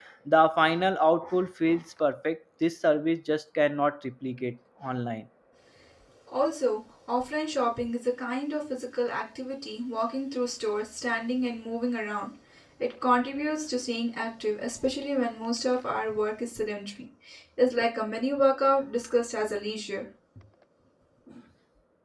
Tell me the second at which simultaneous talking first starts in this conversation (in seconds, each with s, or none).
none